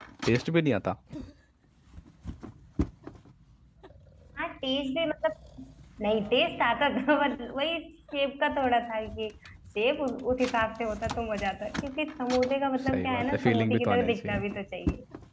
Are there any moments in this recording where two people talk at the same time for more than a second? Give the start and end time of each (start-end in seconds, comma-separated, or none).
12.8-14.4